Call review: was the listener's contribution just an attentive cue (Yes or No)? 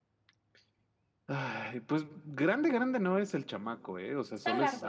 Yes